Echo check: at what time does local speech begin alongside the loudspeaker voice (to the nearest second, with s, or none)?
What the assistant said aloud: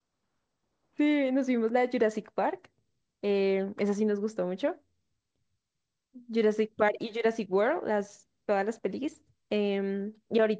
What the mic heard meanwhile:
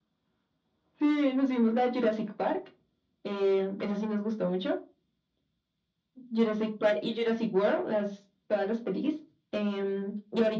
none